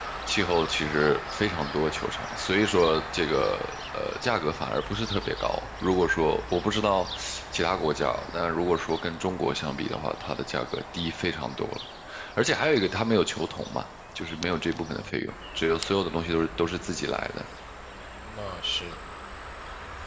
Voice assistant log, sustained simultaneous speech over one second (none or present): none